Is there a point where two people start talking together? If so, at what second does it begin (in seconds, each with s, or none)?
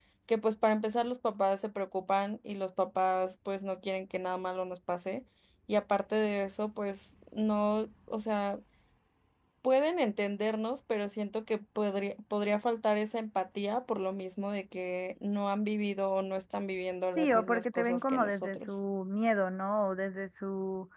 17.2 s